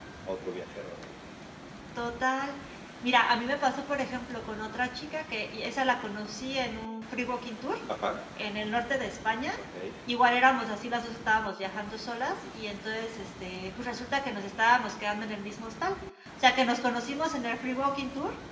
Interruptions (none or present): none